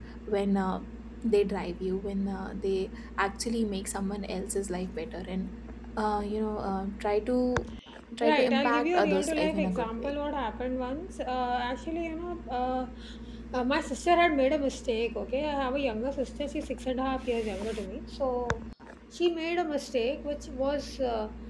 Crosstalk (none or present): present